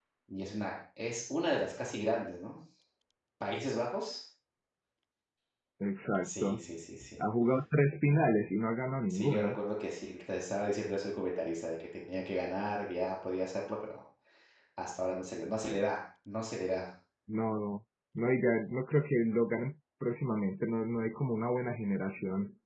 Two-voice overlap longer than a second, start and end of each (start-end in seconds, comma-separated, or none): none